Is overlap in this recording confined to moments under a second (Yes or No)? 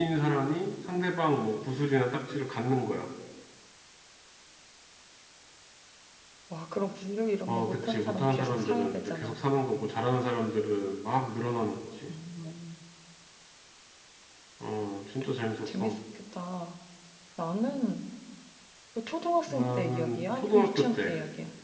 No